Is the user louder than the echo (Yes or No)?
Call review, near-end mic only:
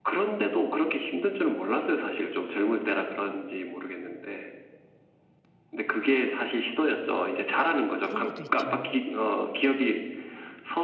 No